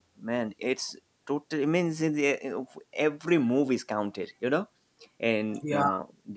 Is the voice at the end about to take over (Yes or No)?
No